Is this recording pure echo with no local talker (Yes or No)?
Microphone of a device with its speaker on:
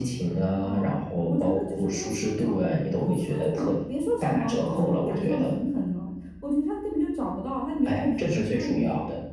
Yes